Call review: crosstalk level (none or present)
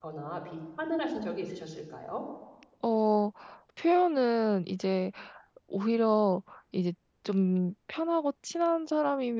none